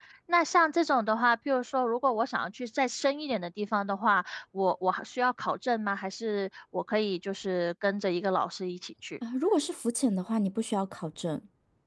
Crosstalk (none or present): none